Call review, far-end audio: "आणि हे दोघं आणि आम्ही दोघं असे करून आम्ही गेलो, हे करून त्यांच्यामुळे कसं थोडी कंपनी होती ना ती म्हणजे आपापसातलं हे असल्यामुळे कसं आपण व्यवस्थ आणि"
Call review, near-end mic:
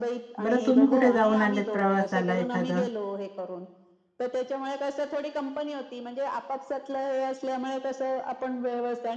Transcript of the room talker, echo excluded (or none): बरं तुम्ही कुठे जाऊन आलेत प्रवासाला एखादं